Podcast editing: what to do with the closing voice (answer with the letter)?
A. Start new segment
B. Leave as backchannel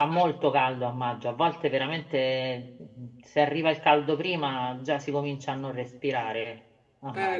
A